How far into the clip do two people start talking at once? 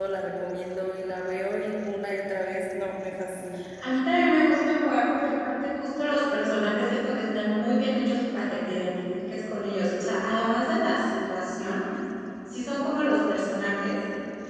none

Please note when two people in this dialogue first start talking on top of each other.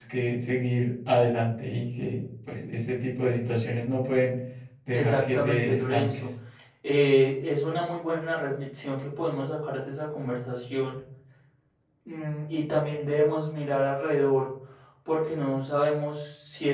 4.9 s

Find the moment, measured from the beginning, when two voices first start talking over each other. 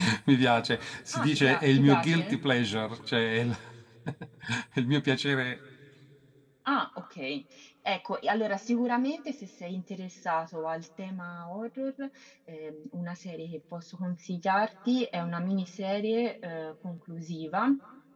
1.1 s

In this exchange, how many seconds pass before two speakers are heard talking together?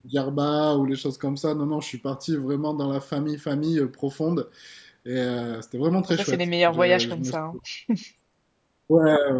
6.1 s

